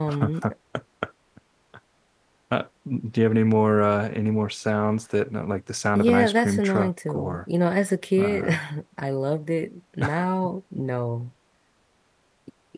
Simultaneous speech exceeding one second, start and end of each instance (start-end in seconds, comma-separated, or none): 6.0-7.4